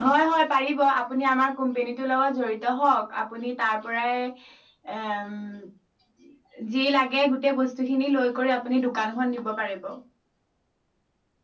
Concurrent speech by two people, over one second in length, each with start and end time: none

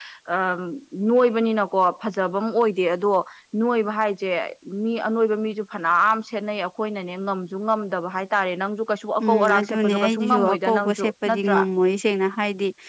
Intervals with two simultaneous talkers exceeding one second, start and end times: 9.2-11.6

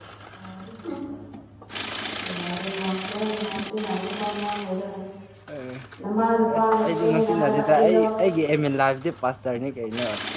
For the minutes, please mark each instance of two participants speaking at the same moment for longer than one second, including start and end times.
6.5-8.0

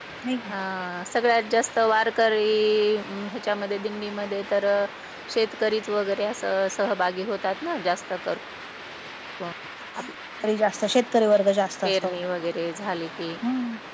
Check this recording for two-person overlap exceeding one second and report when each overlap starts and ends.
none

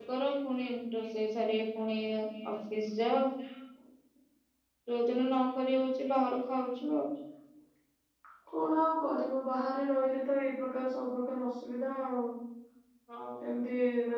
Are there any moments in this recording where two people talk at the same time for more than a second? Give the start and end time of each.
none

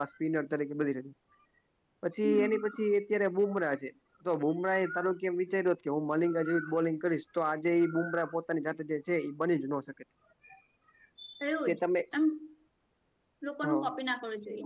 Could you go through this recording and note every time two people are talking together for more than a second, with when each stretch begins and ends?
none

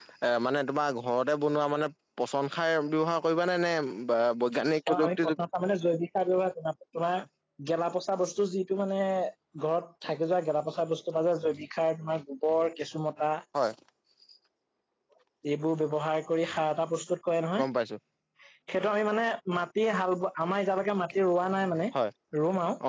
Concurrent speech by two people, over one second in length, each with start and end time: none

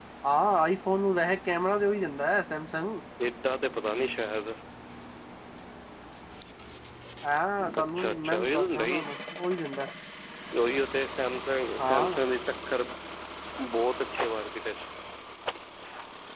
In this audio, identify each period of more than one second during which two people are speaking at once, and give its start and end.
7.8-9.0

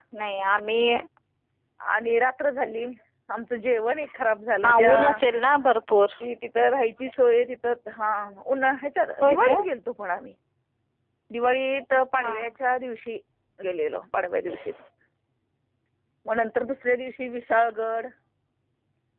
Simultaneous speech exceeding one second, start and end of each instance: none

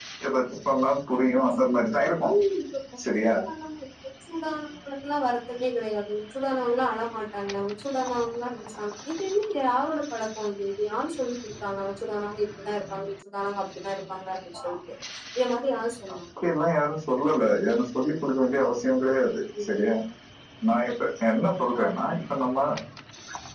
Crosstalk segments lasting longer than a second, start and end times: none

